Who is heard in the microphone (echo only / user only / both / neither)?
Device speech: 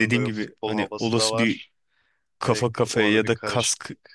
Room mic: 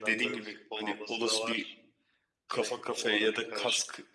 echo only